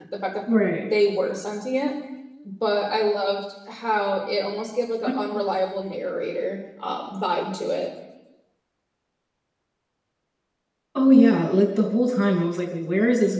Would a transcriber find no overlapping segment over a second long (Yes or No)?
Yes